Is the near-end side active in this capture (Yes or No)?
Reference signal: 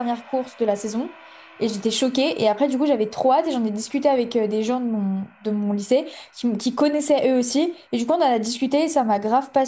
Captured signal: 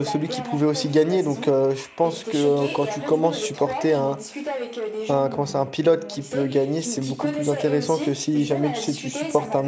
Yes